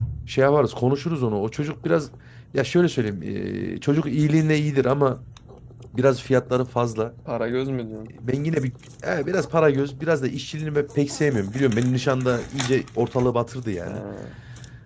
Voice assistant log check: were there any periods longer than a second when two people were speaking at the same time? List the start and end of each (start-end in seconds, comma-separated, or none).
none